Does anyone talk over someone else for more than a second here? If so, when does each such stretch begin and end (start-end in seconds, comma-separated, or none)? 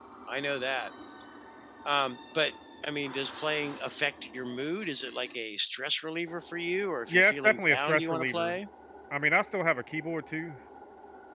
7.1-8.6